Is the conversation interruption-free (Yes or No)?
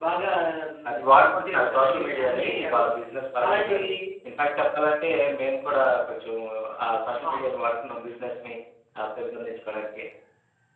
No